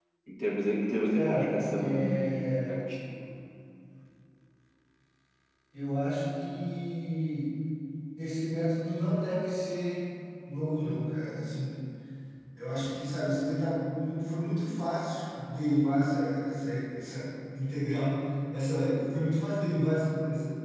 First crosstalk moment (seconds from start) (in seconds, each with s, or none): 1.1 s